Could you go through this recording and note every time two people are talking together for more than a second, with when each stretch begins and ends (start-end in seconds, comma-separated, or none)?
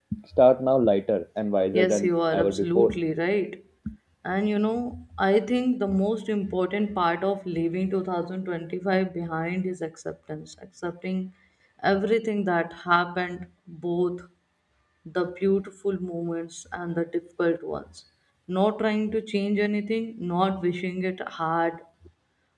1.7-3.0